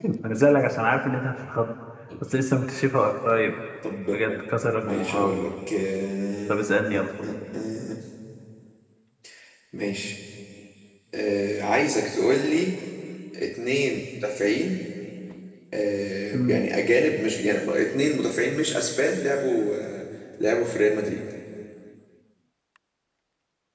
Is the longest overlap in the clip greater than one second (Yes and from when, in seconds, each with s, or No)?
No